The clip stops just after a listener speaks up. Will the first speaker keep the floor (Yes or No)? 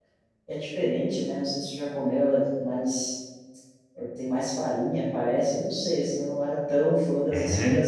Yes